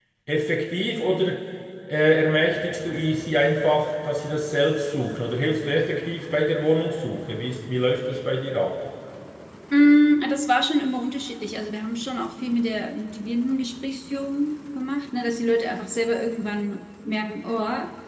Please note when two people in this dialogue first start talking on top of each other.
none

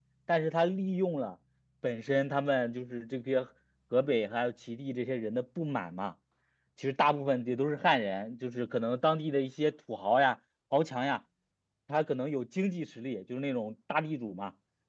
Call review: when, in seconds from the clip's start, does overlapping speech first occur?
none

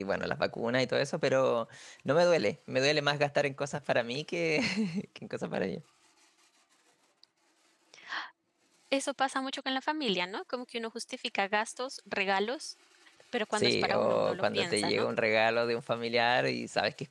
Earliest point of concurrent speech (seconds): 13.5 s

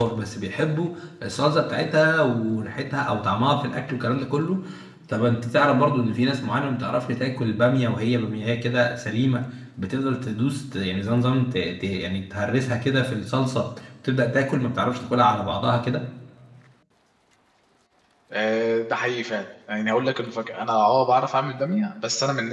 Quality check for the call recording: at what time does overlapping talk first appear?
none

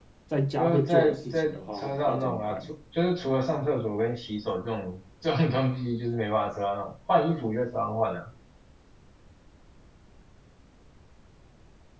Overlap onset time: 0.6 s

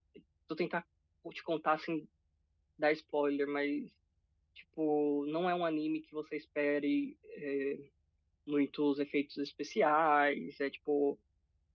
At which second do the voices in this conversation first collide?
none

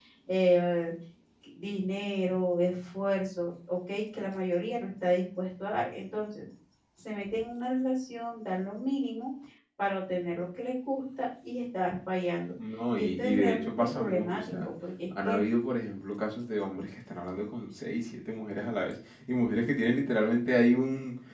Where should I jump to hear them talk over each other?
12.9 s

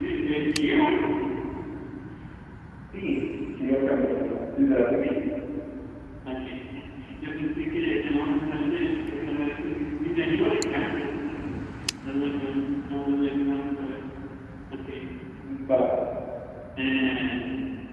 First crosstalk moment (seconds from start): none

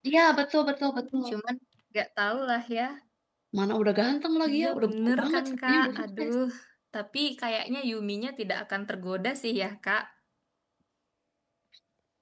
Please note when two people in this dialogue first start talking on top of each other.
4.5 s

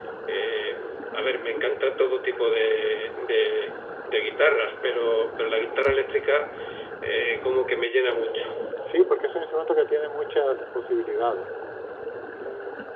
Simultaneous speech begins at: none

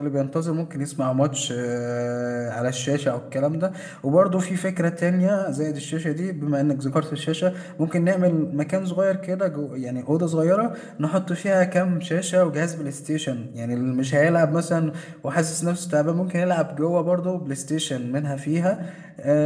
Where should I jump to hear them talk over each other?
none

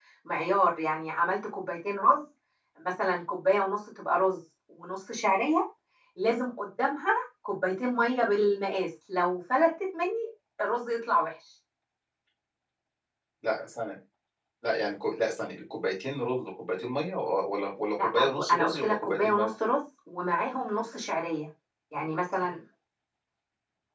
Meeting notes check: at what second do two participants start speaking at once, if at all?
18.0 s

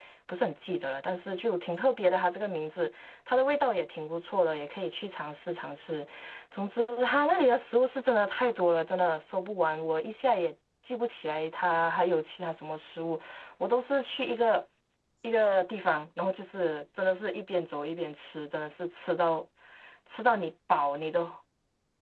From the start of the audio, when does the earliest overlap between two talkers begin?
none

